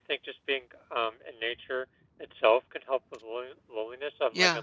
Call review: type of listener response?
taking over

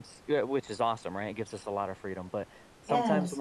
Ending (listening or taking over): listening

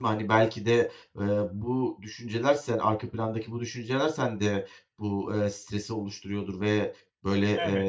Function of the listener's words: listening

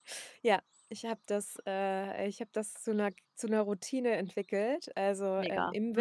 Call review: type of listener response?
listening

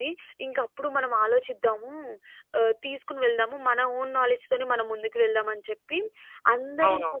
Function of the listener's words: listening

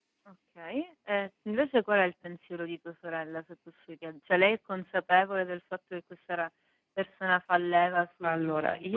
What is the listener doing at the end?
taking over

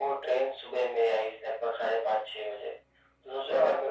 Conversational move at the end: listening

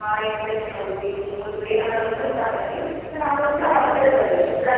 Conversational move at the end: listening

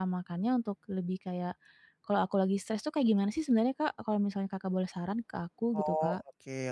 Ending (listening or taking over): taking over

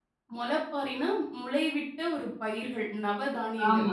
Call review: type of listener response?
taking over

